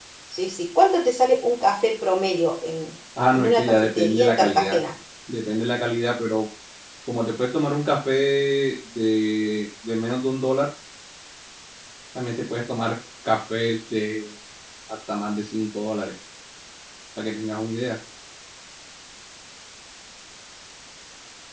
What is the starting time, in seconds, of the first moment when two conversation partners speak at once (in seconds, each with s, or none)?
3.2 s